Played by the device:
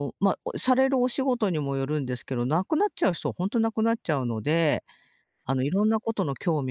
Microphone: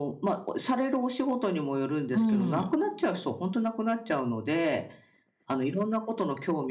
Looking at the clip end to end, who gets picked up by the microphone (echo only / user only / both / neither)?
both